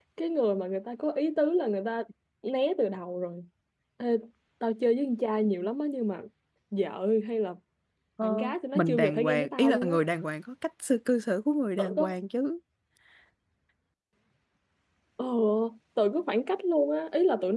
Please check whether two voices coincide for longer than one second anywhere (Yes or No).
Yes